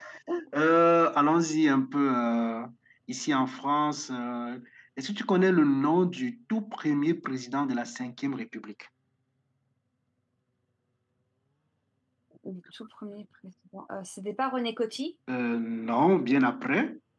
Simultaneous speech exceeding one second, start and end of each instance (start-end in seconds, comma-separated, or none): none